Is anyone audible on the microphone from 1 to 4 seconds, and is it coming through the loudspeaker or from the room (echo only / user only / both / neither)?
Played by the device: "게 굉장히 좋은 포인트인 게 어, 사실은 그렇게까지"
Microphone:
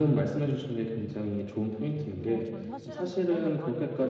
both